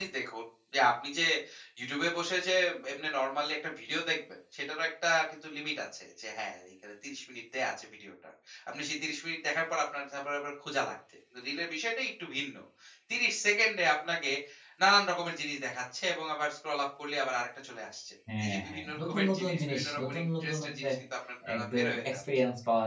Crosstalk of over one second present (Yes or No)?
Yes